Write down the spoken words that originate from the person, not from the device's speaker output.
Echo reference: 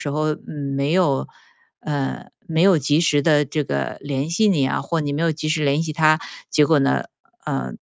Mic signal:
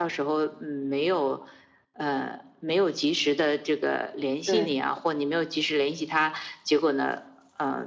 对，

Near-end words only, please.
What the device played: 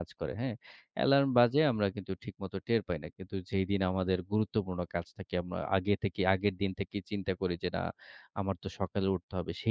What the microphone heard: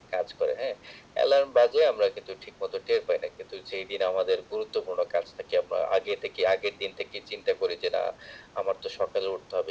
none

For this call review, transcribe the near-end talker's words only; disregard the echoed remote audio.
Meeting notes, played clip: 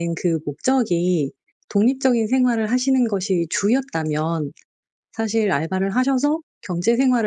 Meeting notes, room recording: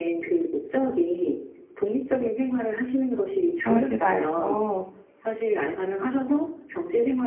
그러지 말고

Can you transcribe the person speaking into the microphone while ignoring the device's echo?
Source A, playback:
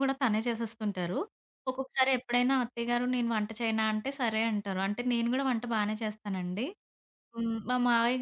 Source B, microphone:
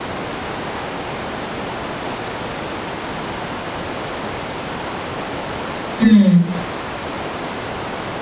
హ్మ్.

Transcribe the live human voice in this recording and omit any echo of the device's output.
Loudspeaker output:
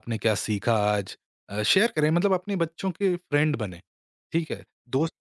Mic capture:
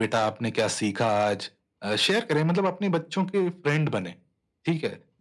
none

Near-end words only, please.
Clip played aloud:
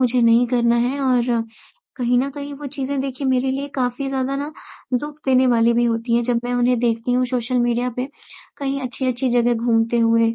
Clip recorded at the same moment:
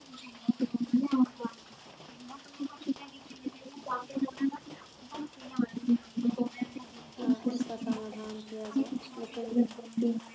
अ, इसका समाधान किया जाए, लेकिन

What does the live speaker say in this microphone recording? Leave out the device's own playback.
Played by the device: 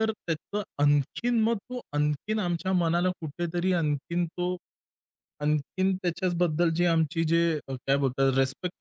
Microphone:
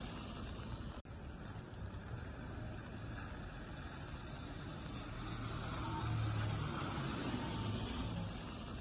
none

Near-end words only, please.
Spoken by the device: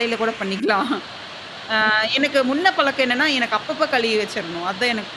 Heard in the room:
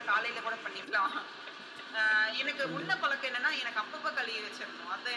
கண்டிப்பா.

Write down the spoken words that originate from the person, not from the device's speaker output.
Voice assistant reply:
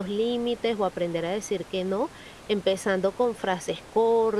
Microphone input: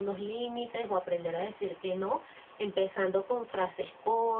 none

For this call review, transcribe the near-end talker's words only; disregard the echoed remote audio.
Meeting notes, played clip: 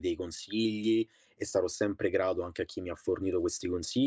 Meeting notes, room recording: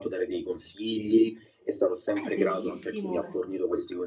Eh, benissimo.

